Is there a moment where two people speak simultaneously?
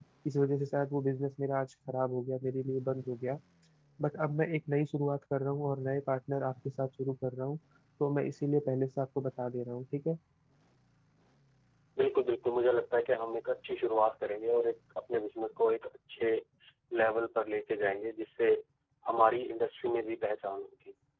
No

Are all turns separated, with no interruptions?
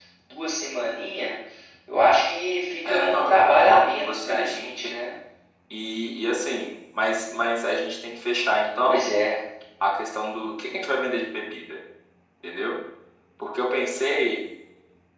No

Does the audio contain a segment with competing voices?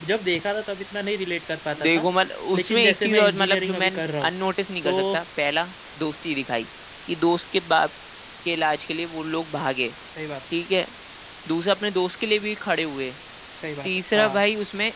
Yes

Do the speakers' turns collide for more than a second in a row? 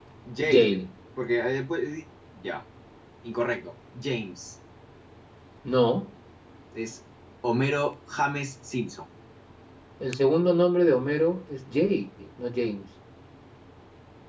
No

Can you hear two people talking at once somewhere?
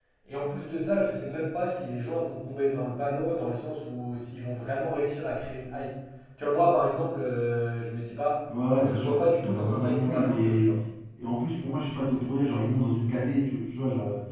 Yes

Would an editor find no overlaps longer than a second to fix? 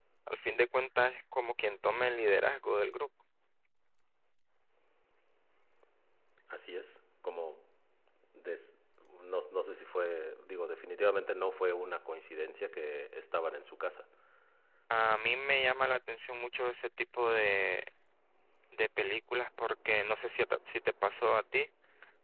Yes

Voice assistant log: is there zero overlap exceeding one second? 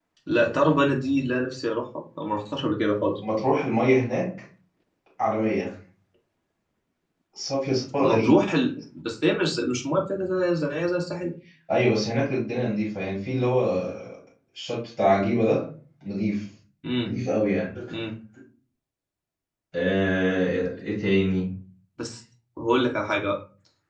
Yes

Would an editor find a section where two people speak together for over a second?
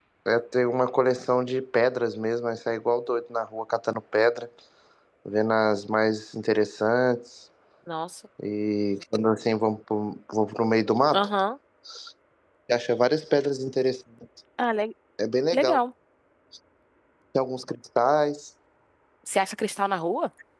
No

